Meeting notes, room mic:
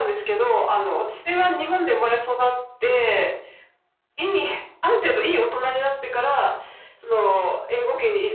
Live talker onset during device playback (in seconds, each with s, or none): none